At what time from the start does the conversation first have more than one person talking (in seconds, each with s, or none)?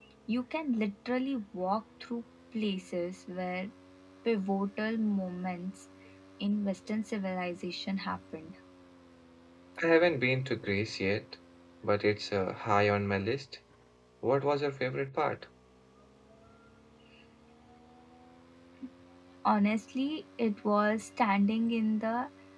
none